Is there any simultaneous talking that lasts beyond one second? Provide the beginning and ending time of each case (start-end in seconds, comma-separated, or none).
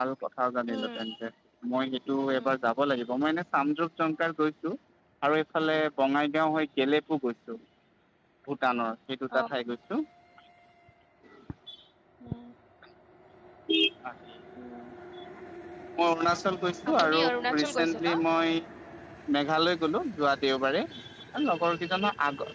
16.9-18.1